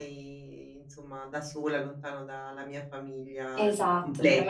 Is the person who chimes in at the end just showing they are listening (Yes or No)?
No